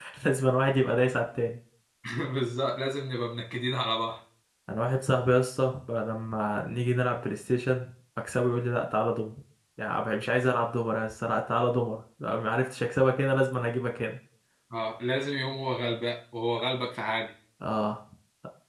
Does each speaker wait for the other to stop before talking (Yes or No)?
Yes